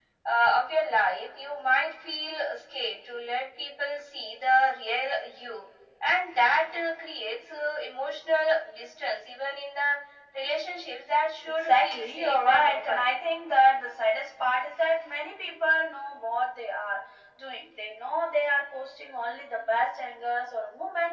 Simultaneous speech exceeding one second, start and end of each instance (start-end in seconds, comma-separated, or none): 11.5-13.1